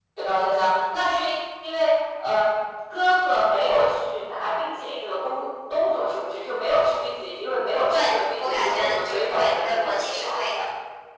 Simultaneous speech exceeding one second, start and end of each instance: 7.9-10.4

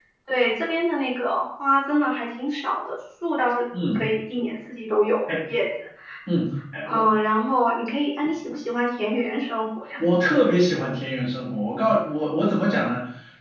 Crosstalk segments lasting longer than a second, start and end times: none

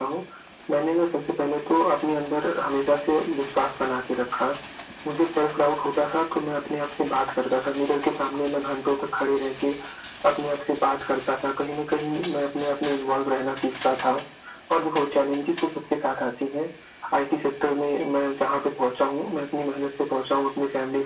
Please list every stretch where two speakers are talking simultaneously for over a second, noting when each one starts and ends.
none

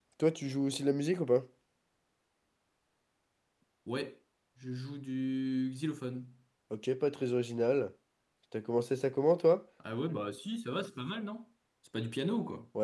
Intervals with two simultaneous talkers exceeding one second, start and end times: none

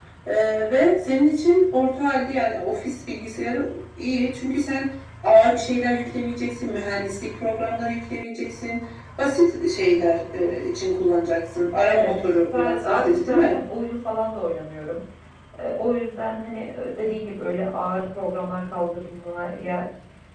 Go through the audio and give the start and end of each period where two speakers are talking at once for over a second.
11.8-13.6

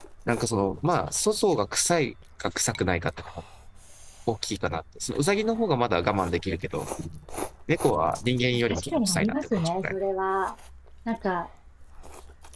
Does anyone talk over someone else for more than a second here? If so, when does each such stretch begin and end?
8.5-9.9

